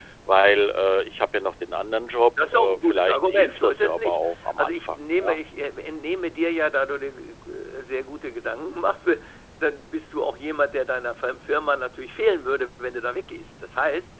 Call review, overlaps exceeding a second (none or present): present